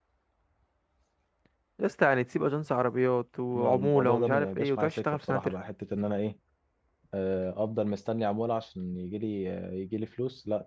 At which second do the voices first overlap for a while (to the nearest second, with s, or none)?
4 s